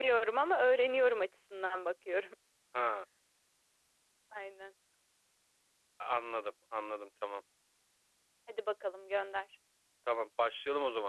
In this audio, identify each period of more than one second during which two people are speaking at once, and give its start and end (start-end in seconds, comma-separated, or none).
none